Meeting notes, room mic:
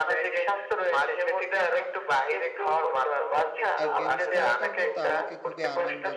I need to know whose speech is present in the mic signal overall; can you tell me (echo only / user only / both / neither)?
both